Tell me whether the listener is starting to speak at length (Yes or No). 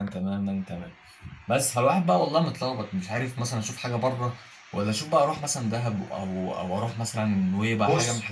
Yes